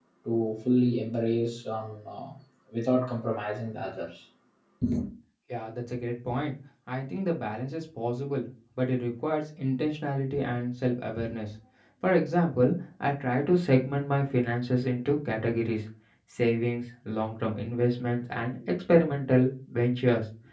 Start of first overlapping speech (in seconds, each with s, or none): none